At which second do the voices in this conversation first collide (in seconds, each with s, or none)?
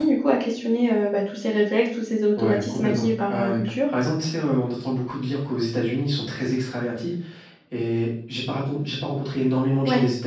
2.4 s